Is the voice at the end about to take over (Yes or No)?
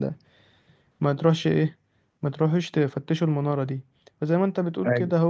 No